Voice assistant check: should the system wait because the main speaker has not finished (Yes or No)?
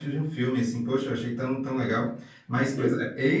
Yes